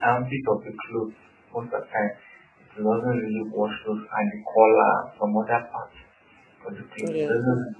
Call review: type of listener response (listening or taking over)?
listening